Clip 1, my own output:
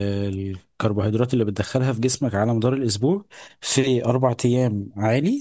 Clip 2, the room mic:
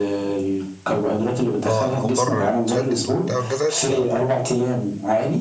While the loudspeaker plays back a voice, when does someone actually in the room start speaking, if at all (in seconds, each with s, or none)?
1.6 s